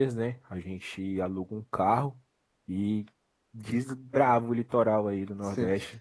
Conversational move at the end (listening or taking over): taking over